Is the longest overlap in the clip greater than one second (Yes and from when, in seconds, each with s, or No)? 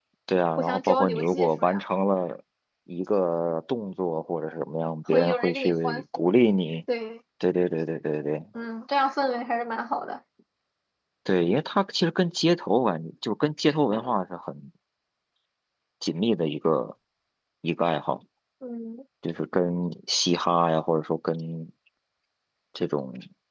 Yes, from 0.6 s